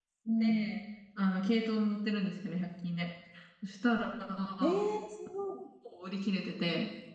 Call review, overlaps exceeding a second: none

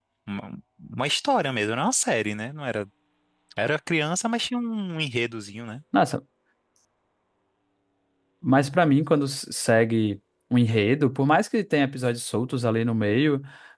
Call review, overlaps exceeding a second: none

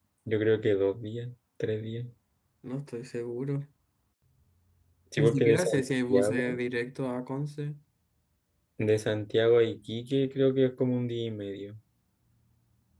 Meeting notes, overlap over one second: present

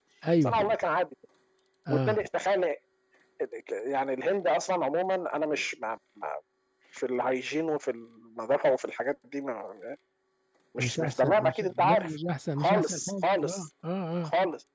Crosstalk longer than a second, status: present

